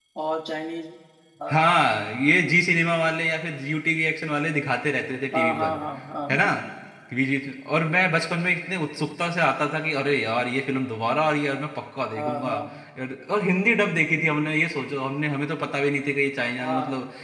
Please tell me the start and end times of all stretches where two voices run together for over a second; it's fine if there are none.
none

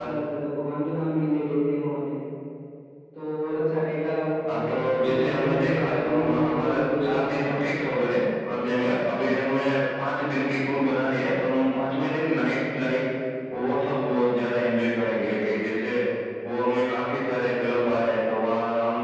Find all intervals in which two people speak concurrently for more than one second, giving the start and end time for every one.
5.0-7.4

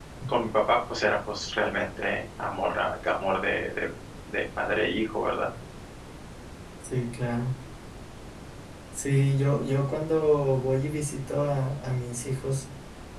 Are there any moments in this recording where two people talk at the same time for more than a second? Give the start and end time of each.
none

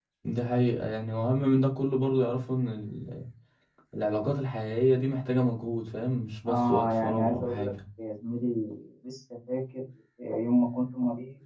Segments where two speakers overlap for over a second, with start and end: 6.5-7.7

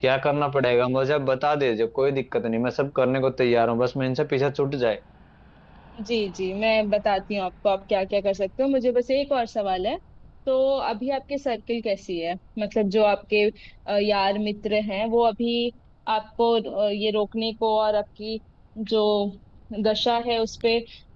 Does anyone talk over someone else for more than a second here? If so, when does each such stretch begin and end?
none

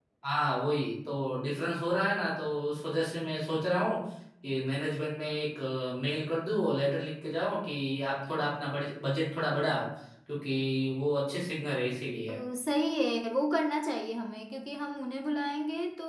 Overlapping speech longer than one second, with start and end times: none

